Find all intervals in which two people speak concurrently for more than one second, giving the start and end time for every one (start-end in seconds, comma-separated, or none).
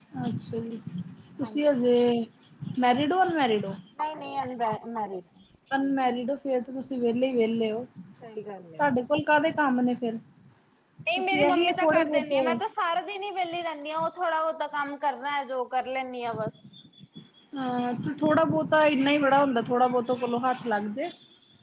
11.2-12.6